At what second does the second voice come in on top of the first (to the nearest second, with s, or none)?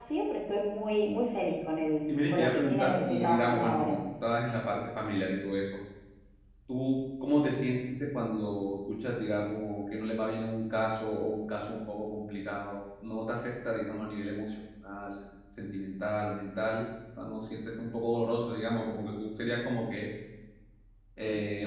2 s